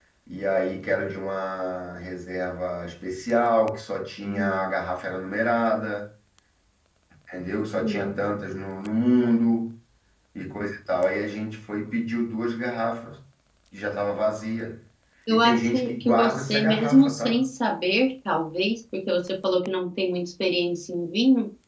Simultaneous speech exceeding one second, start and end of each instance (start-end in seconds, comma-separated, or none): 15.3-17.4